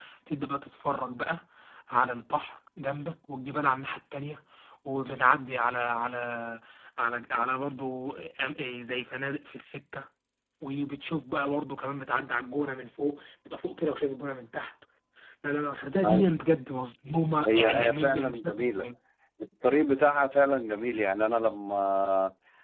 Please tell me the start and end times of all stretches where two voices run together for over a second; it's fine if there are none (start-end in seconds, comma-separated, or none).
17.5-18.9